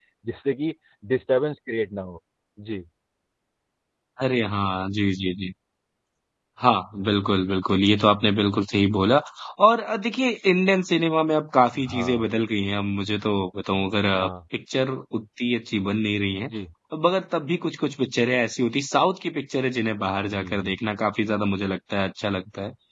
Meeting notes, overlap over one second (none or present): none